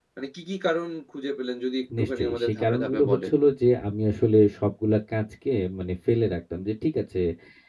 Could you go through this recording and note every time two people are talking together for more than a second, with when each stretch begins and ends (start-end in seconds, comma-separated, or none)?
2.0-3.3